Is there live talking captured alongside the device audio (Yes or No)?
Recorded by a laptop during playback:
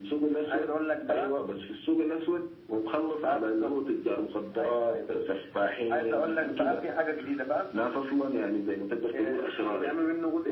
No